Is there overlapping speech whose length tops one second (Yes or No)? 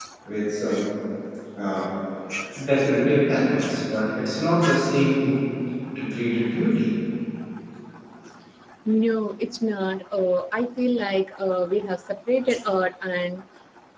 No